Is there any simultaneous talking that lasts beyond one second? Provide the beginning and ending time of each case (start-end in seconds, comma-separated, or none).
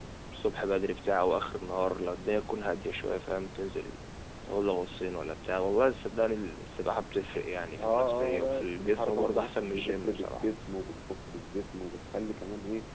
7.8-10.4